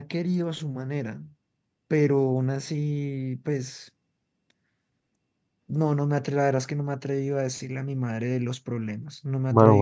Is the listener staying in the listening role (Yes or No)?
No